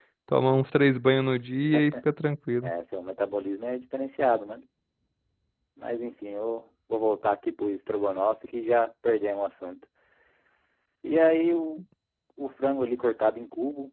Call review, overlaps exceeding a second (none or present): none